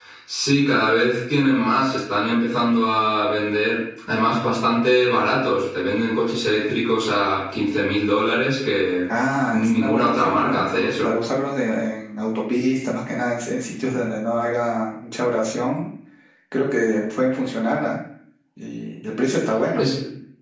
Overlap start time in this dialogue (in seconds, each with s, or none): 9.5 s